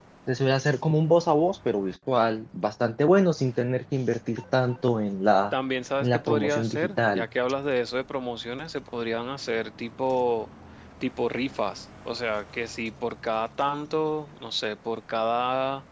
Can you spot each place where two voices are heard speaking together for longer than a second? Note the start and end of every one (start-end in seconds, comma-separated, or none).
6.0-7.3